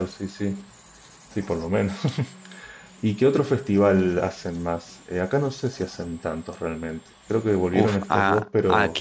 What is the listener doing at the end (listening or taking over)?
taking over